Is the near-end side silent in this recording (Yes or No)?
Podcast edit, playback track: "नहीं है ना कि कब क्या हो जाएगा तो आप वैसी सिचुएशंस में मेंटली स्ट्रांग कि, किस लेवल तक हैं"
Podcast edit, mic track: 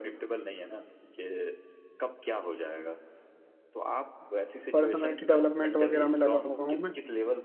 No